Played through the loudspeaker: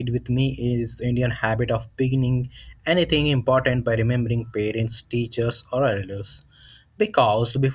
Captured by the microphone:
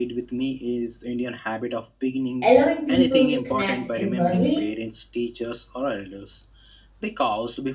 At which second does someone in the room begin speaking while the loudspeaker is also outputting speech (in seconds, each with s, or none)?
2.4 s